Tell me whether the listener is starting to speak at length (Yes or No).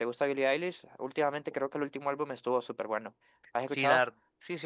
Yes